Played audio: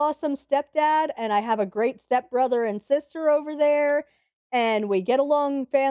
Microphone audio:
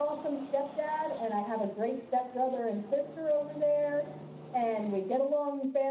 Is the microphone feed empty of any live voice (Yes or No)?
Yes